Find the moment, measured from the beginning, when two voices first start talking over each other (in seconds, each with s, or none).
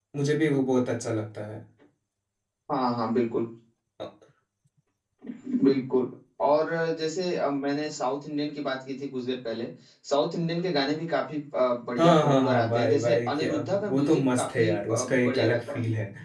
12.0 s